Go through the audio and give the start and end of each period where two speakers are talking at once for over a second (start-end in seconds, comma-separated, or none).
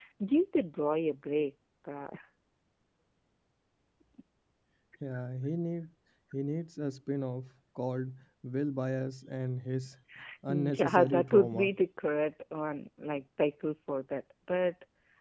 10.5-11.7